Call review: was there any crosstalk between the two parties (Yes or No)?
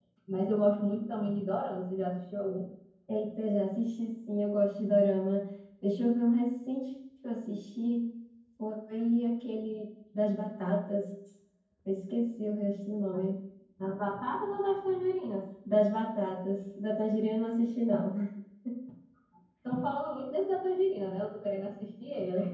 No